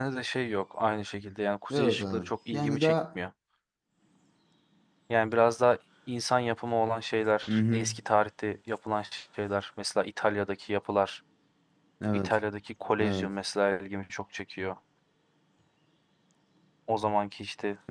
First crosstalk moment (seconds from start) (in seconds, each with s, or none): 1.7 s